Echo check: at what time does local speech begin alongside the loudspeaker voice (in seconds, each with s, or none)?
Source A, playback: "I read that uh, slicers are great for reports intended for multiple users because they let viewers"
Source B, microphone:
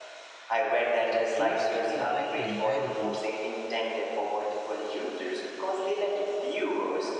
1.0 s